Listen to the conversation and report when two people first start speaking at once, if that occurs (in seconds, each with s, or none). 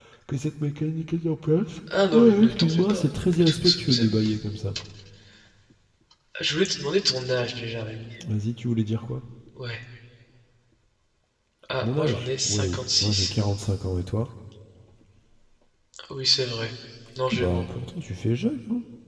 2.1 s